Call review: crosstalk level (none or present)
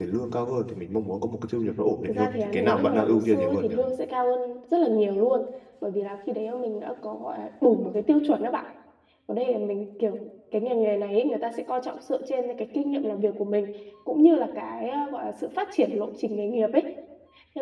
present